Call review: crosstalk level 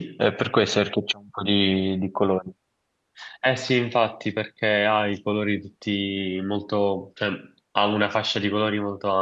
none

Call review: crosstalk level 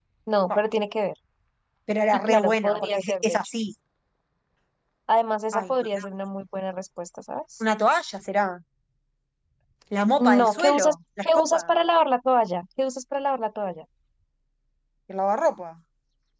present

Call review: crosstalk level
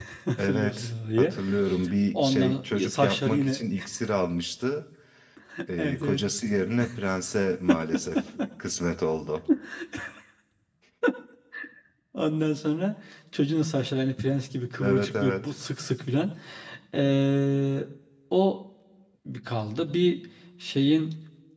present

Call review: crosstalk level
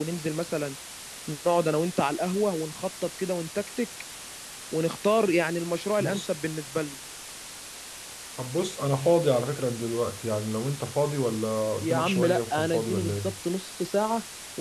present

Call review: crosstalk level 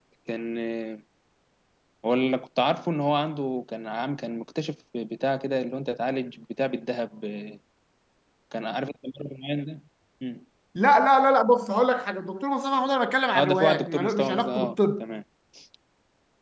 present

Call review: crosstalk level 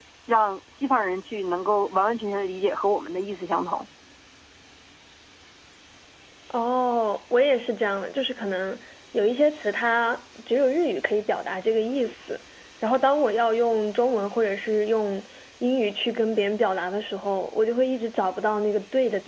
none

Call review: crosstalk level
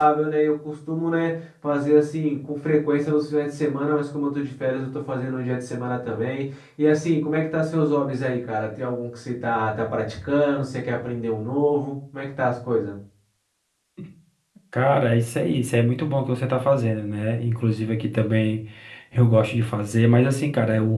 none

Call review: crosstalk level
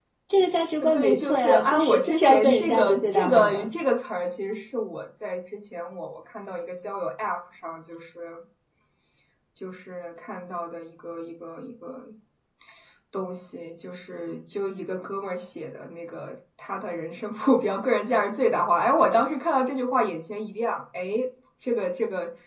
present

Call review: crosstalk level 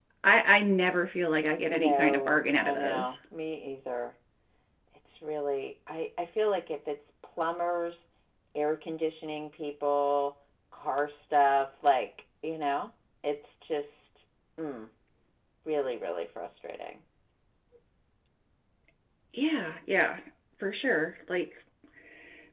present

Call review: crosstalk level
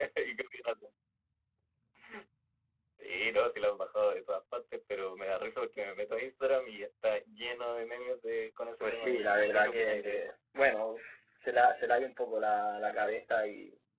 present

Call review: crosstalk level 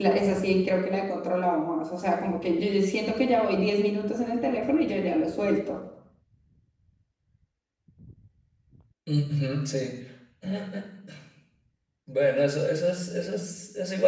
none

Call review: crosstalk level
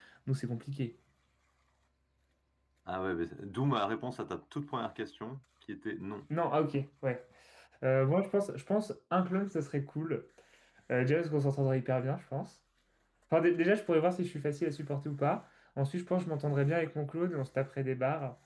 none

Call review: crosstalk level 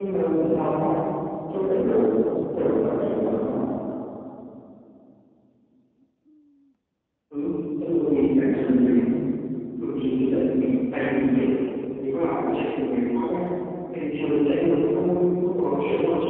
none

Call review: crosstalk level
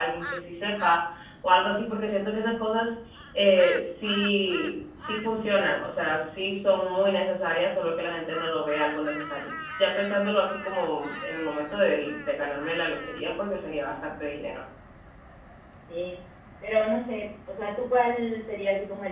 none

